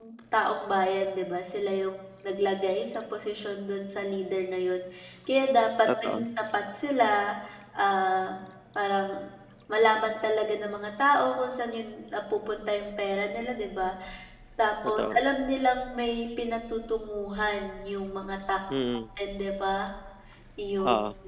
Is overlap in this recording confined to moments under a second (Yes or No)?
Yes